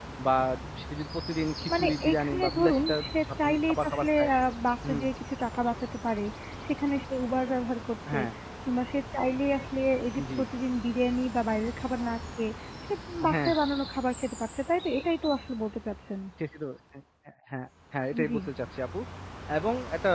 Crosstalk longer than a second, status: present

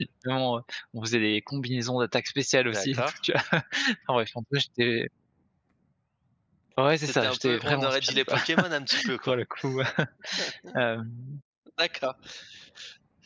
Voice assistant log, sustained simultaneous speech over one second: present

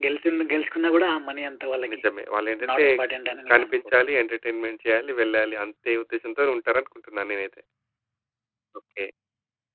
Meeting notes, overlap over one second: none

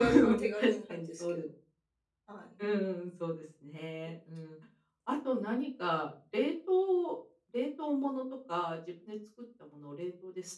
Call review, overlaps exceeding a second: present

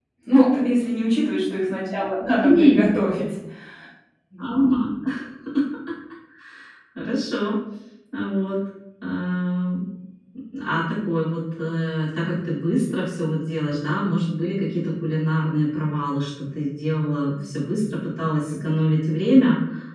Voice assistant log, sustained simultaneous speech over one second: none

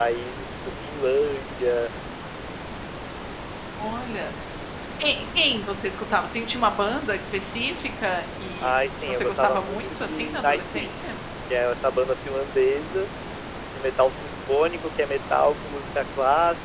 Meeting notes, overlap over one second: present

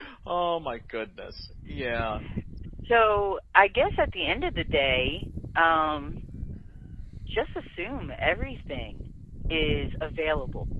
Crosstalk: none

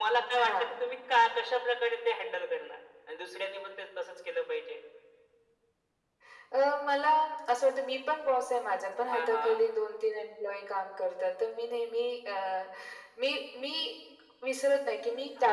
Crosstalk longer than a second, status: none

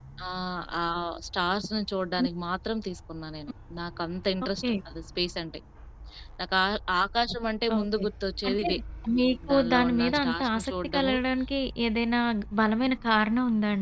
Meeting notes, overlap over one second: present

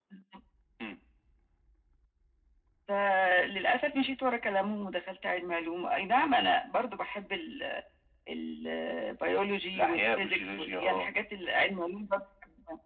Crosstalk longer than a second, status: present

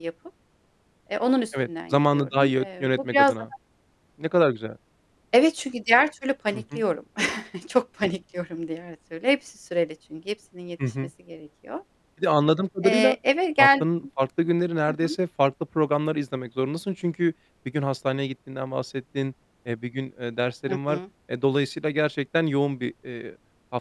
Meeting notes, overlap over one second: present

